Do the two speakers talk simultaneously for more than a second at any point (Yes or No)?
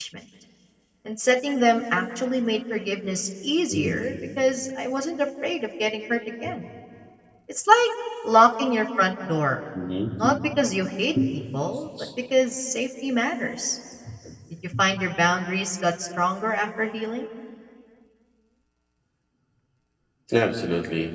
No